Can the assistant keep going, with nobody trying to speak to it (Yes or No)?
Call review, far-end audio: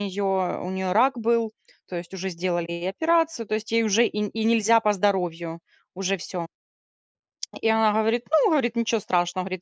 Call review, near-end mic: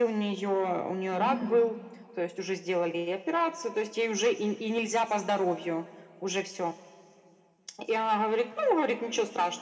No